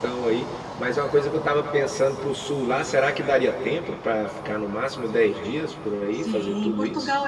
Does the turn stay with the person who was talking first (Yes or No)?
No